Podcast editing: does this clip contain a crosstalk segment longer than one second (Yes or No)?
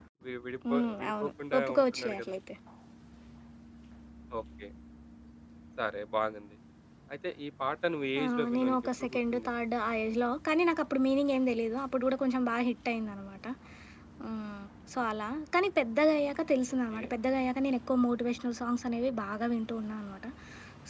Yes